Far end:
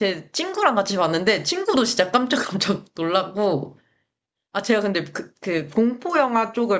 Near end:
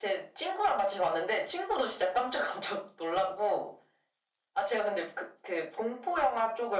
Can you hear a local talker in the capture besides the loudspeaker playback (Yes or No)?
No